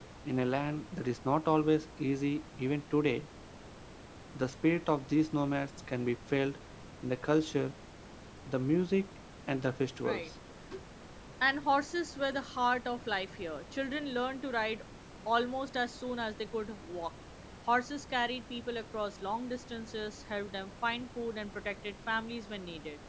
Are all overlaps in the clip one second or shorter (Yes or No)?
Yes